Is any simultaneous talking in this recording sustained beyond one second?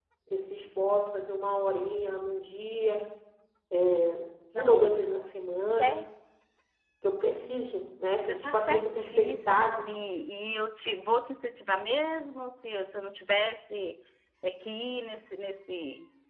Yes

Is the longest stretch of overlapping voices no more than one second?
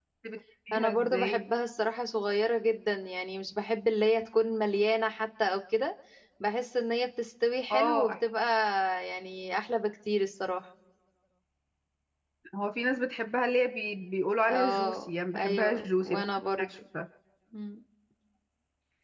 No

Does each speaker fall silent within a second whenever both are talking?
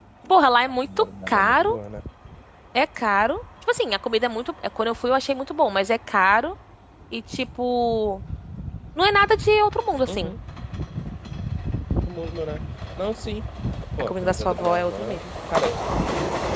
No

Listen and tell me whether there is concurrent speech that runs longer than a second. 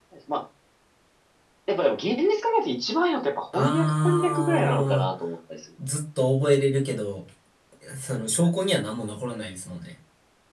Yes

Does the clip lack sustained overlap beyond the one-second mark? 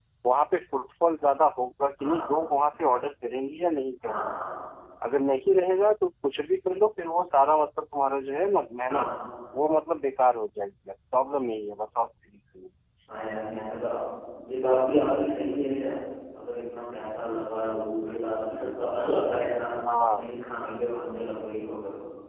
Yes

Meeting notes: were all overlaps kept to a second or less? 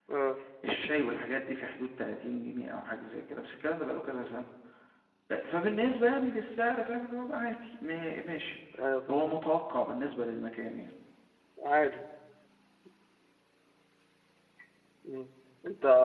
Yes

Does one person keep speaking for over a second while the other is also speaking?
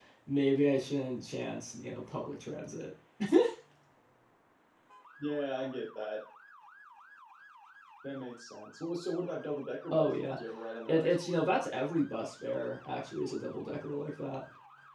No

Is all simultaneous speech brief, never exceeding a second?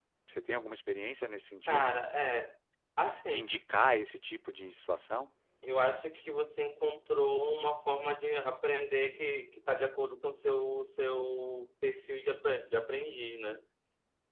Yes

